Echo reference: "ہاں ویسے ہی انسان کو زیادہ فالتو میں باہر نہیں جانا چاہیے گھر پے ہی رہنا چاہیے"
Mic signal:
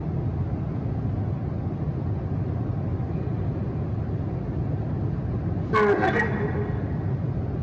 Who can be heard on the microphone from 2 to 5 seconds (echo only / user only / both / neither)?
neither